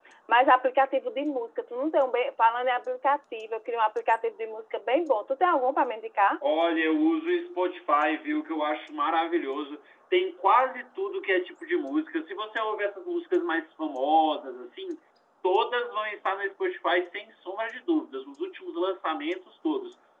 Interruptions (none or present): none